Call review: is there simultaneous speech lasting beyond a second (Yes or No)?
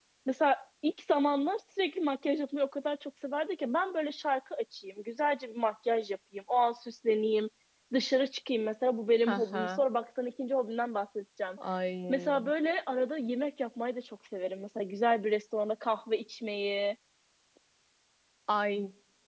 No